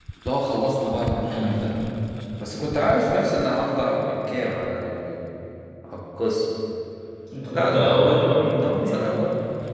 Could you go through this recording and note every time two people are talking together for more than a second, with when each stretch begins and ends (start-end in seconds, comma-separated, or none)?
7.5-9.1